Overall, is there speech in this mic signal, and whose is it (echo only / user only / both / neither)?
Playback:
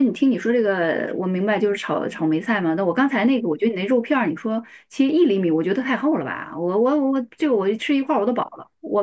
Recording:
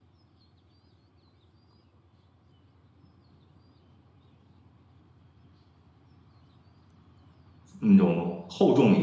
user only